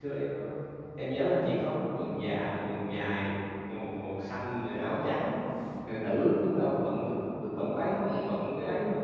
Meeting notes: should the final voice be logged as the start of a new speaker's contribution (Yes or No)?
No